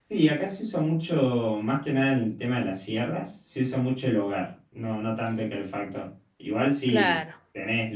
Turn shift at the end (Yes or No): No